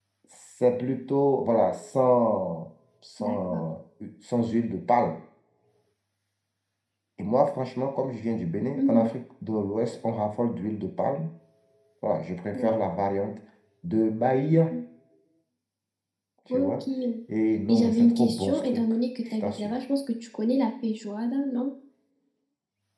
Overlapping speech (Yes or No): Yes